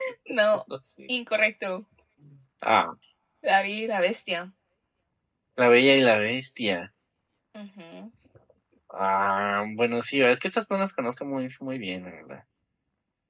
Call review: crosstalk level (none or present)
none